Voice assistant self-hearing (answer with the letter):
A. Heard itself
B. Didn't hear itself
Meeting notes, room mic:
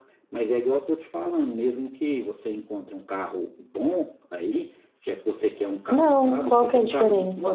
A